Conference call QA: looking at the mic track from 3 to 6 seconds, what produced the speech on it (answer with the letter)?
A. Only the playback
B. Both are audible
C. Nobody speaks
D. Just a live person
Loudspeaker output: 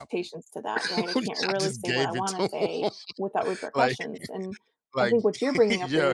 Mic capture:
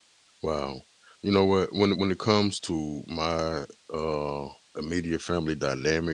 D